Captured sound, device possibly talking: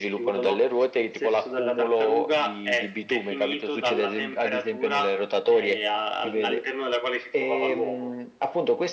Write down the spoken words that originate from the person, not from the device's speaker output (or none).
none